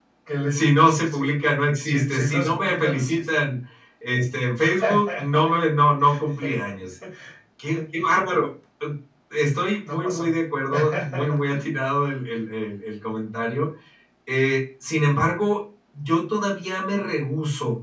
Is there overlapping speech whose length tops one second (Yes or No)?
Yes